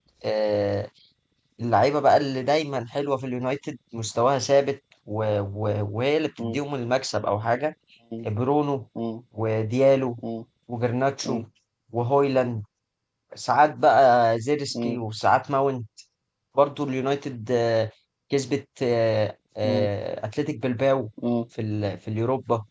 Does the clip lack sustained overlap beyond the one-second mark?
Yes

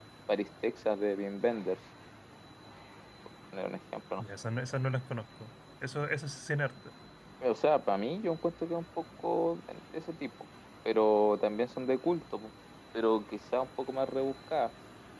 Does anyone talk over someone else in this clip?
No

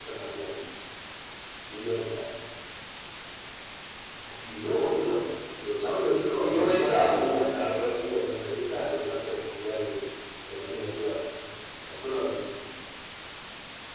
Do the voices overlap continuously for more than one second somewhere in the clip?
Yes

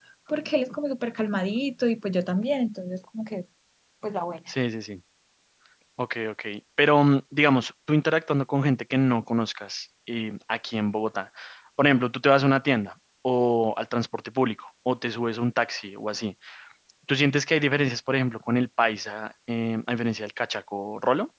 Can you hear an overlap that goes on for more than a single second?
No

